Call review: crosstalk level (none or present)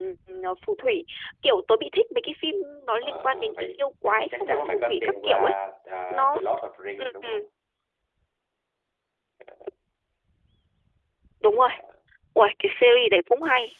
present